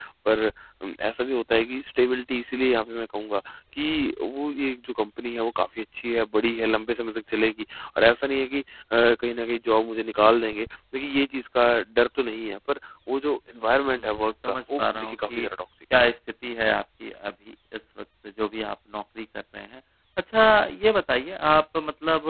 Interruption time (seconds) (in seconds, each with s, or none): 13.8 s